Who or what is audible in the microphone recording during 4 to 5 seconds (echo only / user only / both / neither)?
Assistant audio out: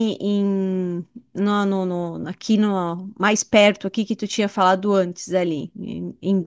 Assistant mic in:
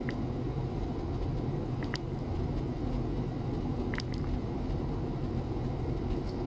neither